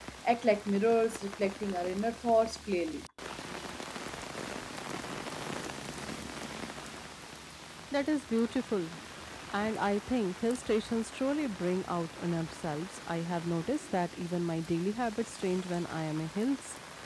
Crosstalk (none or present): none